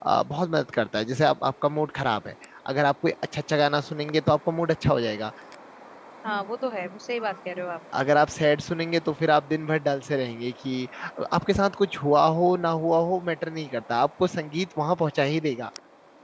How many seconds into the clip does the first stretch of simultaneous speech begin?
none

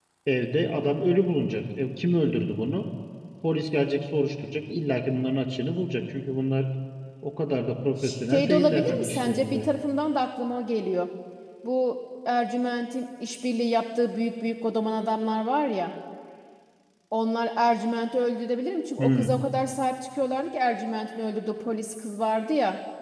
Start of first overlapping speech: 8 s

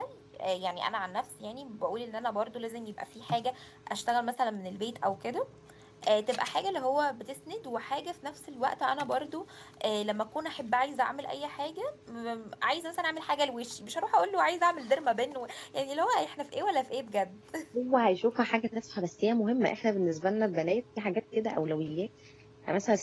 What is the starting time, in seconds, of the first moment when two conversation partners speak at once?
none

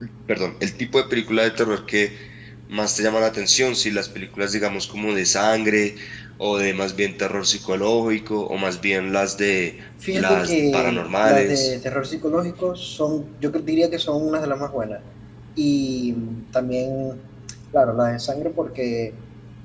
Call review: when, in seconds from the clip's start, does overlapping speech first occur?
10 s

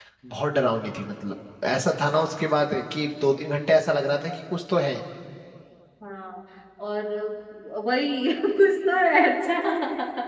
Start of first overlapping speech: none

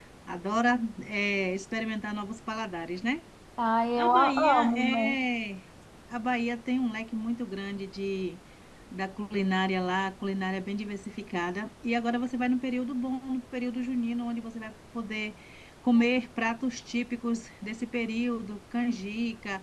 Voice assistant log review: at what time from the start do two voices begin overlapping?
4 s

